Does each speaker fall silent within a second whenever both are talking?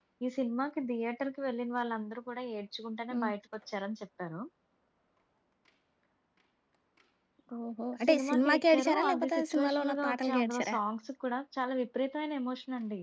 No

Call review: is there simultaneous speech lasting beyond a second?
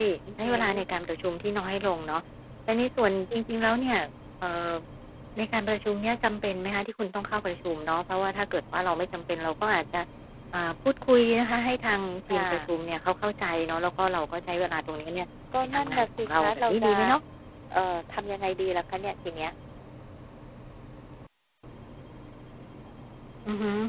Yes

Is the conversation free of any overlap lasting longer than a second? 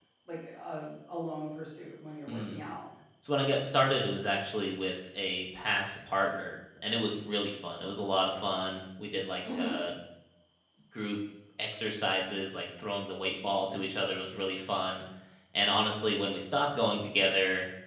Yes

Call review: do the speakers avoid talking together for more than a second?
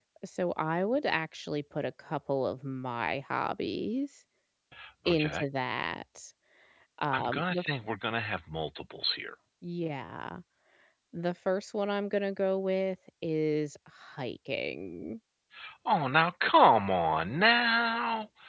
Yes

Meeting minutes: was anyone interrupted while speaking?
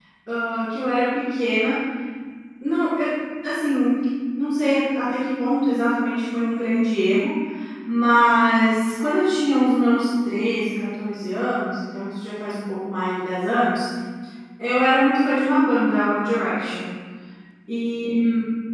No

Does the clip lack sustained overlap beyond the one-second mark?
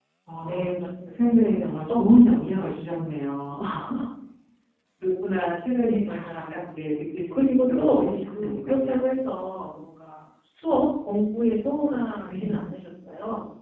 No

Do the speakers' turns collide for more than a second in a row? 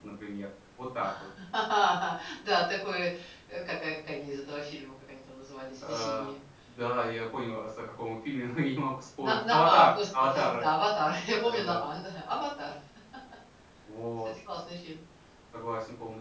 Yes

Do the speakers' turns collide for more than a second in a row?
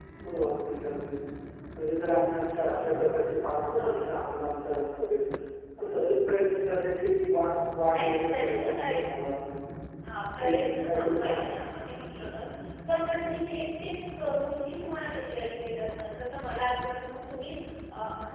Yes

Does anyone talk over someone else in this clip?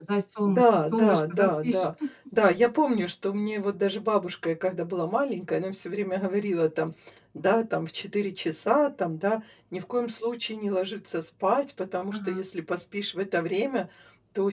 Yes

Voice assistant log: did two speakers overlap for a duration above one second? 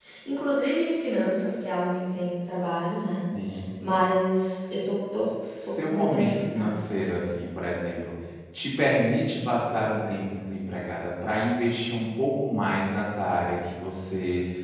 Yes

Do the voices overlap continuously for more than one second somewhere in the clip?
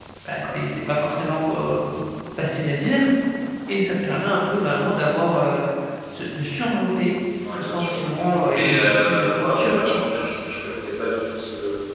Yes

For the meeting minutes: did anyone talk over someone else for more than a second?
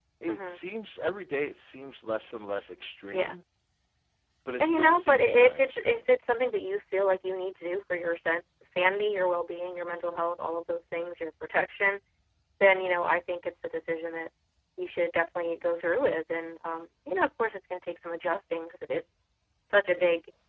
Yes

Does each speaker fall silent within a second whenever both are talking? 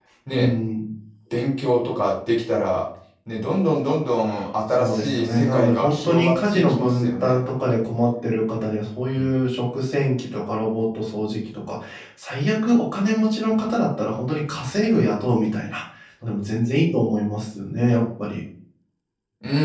No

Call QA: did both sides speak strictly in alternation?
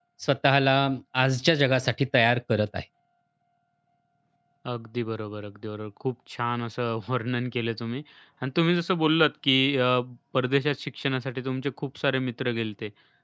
Yes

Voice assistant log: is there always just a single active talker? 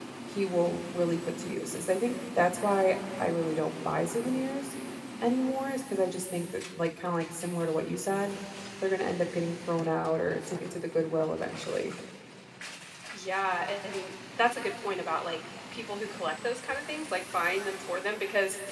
Yes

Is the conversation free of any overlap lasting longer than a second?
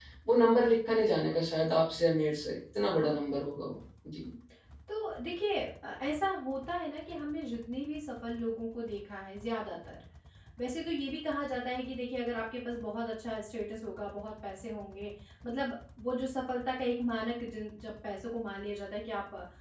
Yes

